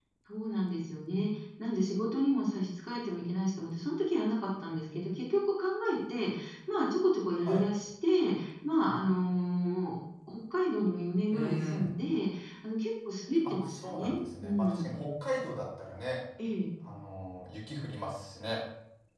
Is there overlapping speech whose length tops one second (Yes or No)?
Yes